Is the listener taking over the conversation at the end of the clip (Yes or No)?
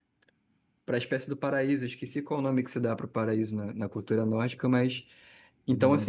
Yes